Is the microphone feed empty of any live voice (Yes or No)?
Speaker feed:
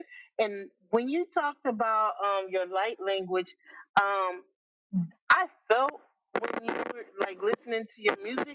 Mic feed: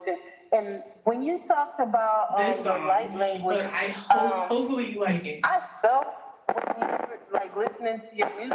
No